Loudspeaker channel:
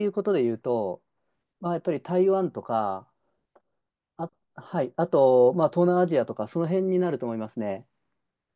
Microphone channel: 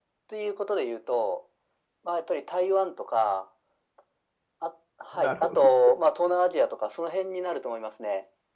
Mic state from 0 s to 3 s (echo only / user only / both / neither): echo only